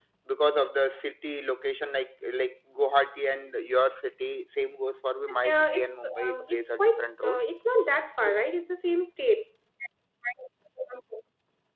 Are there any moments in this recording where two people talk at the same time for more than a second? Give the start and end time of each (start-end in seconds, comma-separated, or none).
5.3-7.4